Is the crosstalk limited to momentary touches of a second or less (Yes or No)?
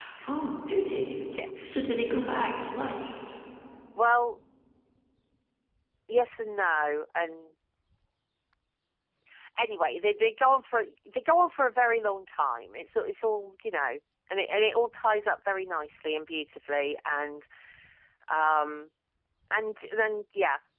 Yes